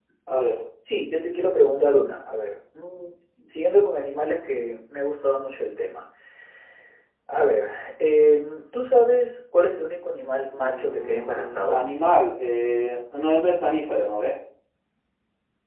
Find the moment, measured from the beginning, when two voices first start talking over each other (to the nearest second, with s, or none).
11 s